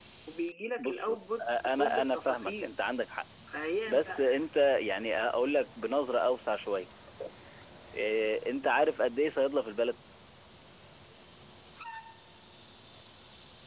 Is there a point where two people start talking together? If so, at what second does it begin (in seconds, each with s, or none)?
0.8 s